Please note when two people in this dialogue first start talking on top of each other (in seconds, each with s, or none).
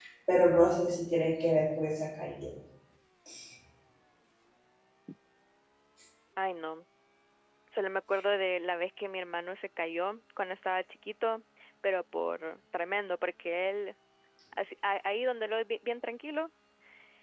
none